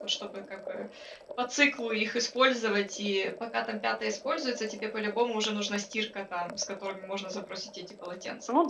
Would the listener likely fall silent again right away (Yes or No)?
No